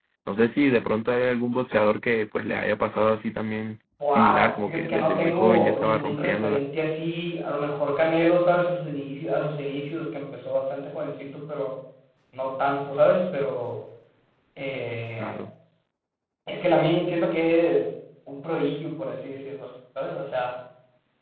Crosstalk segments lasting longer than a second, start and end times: 4.1-6.6

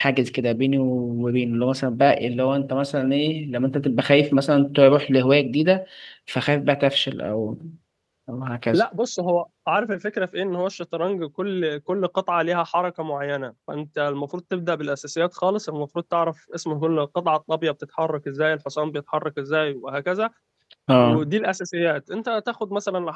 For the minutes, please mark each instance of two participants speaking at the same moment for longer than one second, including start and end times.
none

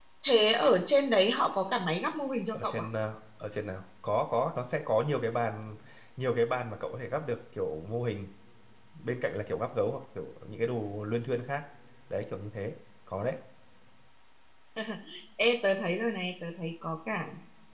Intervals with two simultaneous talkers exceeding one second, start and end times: none

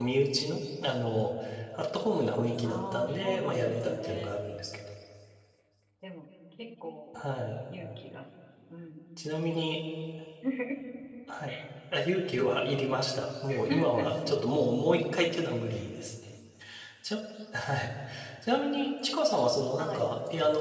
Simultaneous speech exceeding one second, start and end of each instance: 2.6-4.3

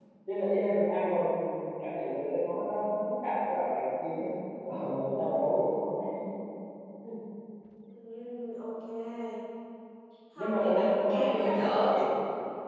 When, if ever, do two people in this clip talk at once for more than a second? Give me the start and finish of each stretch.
10.4-11.9

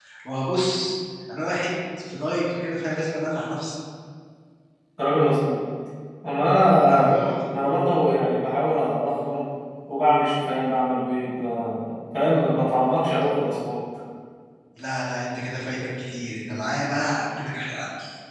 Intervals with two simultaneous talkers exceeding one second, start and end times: none

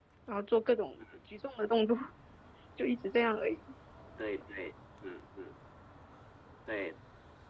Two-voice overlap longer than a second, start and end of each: none

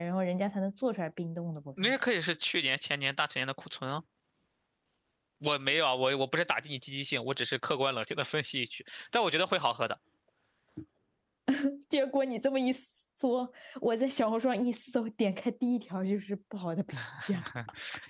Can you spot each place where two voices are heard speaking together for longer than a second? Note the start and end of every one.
none

